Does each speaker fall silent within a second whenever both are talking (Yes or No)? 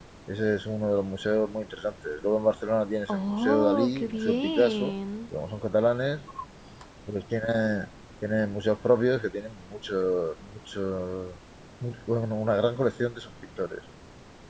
No